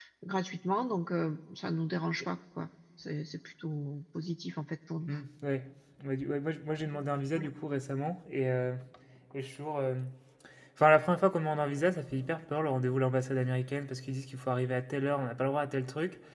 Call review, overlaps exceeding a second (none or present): none